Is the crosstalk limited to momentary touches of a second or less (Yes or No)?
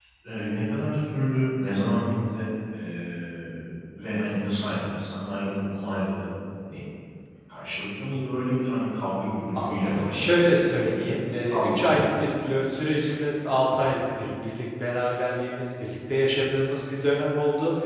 No